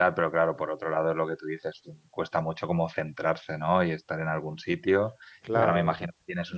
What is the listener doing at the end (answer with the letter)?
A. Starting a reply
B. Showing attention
B